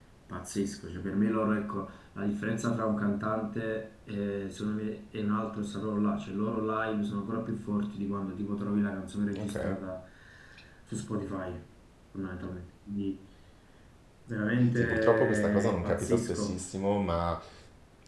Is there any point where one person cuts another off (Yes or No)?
Yes